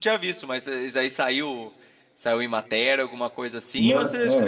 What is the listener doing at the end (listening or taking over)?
taking over